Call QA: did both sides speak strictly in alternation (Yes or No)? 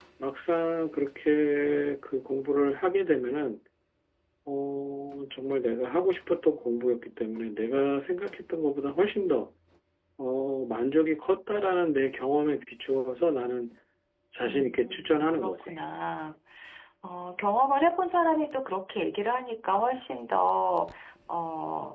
No